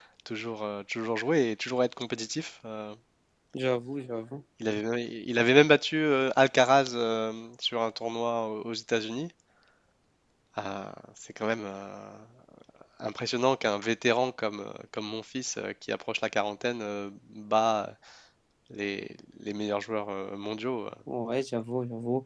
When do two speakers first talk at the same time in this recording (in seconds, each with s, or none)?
none